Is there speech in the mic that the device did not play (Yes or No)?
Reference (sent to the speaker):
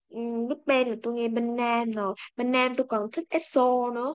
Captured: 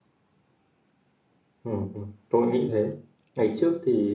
Yes